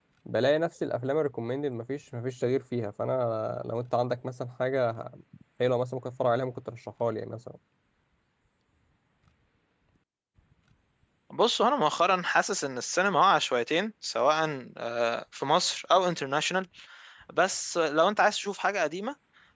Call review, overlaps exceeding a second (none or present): none